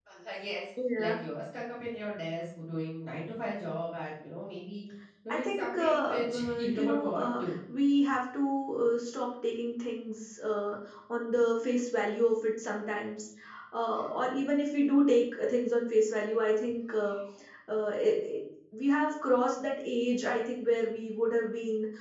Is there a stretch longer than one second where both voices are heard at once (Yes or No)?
Yes